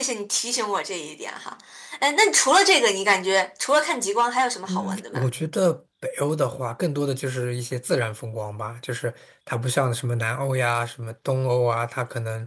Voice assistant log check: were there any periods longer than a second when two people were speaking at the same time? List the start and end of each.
none

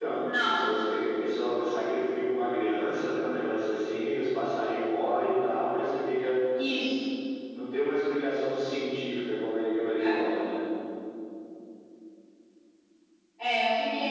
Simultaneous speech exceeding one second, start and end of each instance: none

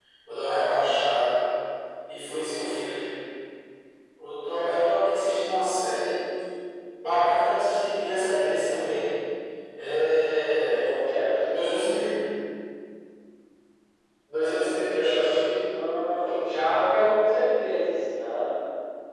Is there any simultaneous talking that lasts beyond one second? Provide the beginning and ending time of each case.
none

